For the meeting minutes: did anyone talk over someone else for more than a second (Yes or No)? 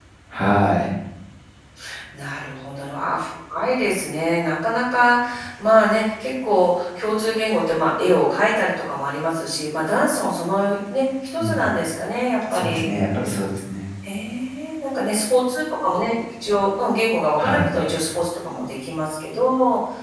No